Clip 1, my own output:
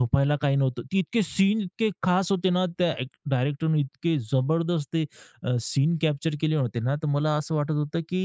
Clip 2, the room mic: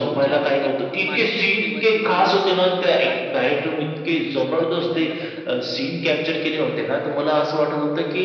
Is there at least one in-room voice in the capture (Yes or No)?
Yes